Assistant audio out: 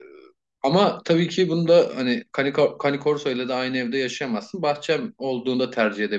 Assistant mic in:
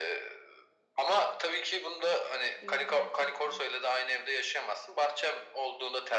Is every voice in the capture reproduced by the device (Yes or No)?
No